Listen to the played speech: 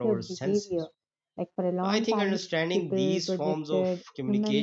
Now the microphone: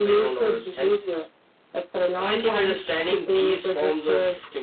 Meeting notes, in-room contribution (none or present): none